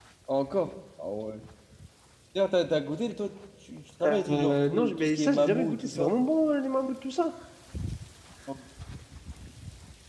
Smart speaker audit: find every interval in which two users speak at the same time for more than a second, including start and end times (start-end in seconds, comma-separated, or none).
4.0-6.1